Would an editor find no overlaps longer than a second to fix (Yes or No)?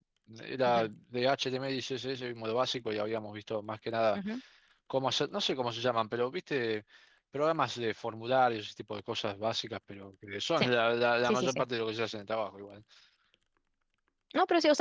Yes